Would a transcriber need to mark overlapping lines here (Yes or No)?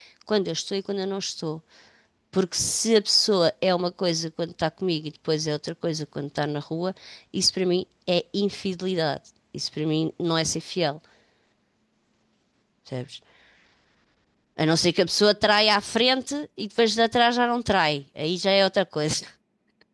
No